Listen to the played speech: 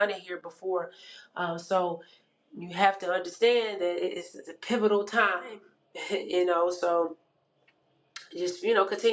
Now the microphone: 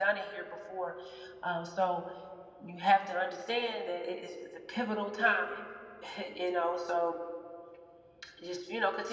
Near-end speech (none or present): none